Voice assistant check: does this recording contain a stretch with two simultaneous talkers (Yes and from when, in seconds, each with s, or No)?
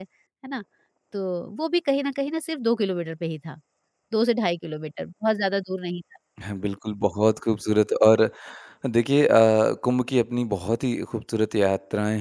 No